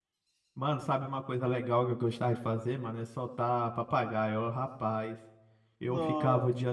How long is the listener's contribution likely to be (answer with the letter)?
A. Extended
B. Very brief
B